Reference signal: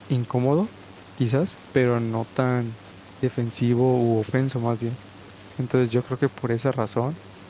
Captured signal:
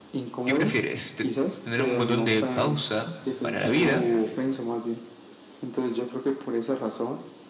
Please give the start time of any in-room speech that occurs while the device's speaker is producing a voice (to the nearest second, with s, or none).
0 s